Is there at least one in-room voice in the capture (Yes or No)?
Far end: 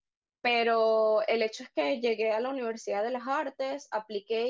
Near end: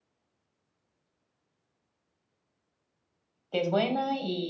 Yes